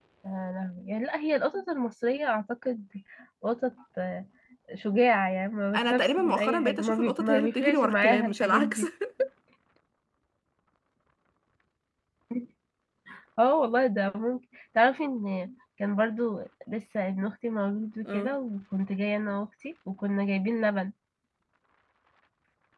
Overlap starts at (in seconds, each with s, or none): 5.8 s